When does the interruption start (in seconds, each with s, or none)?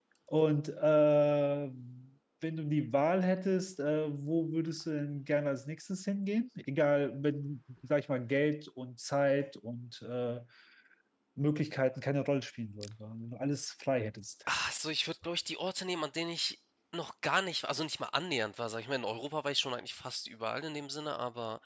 none